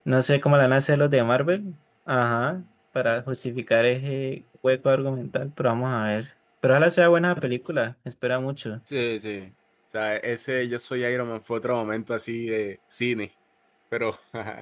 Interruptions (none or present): none